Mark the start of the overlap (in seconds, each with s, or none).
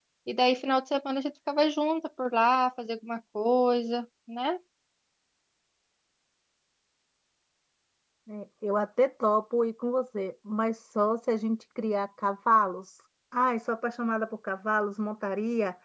none